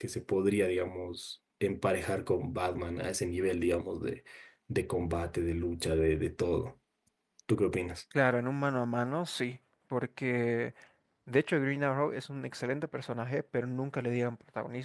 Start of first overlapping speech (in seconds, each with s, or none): none